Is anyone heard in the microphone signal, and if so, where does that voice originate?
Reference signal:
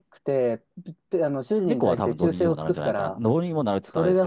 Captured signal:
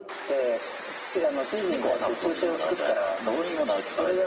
echo only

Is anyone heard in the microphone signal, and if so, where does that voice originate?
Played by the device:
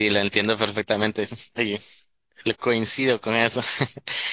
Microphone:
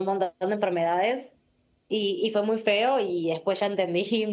user only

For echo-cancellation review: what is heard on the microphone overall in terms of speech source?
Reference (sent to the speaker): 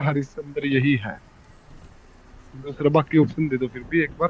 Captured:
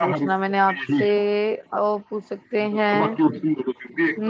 both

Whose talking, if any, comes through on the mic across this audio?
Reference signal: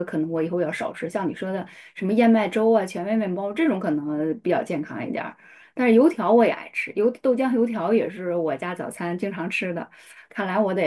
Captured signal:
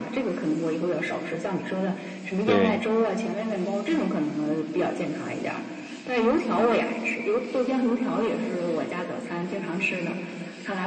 both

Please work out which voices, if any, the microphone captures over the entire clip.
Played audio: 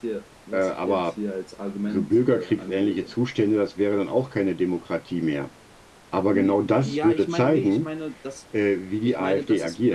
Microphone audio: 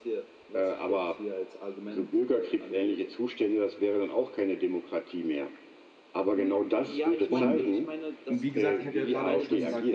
both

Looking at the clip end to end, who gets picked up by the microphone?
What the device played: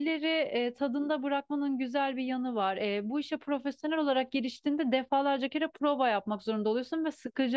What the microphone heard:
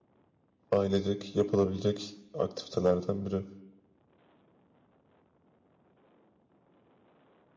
user only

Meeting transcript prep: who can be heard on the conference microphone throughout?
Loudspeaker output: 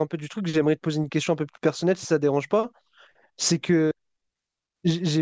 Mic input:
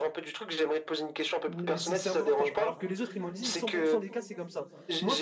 both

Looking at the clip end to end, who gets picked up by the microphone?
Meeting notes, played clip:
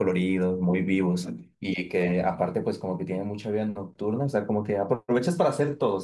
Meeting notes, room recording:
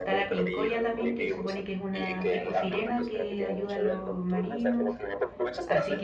both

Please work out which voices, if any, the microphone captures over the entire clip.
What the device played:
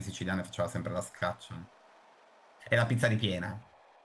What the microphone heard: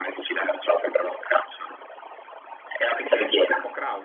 both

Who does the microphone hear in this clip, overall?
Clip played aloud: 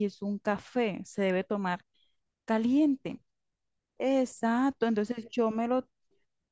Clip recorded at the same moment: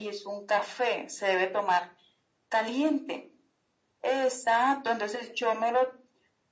echo only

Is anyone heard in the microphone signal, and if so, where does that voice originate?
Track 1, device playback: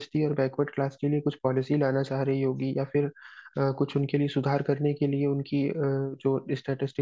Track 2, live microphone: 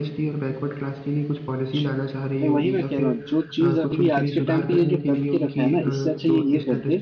both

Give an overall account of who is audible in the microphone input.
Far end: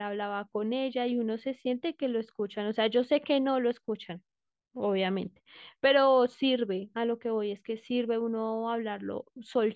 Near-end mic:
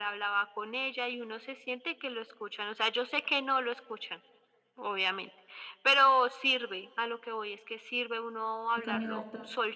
both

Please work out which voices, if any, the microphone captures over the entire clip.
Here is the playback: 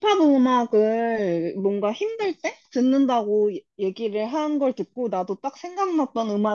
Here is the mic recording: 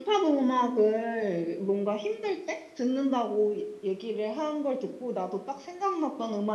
echo only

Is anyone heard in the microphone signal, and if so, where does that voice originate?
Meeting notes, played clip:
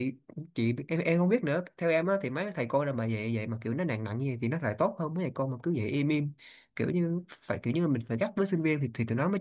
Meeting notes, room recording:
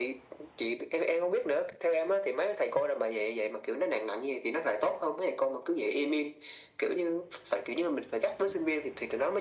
echo only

